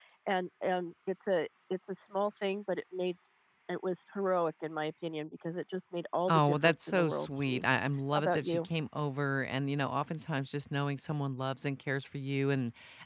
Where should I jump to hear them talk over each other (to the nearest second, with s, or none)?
6 s